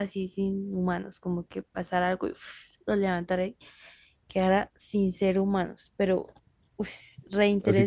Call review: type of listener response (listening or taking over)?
taking over